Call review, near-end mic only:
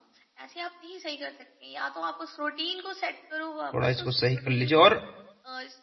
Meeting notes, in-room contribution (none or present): present